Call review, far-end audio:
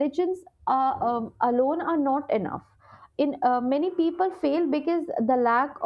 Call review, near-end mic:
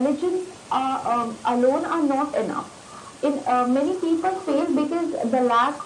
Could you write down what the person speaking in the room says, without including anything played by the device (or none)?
none